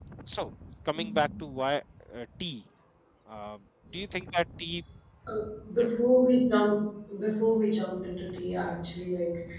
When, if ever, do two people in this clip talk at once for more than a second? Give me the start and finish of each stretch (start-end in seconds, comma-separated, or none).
none